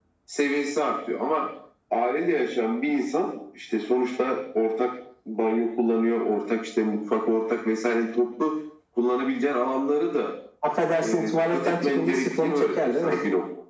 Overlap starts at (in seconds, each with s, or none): 11.0 s